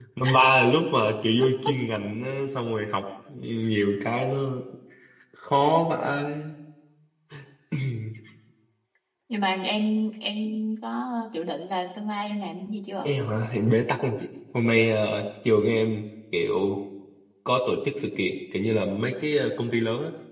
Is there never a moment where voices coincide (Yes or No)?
Yes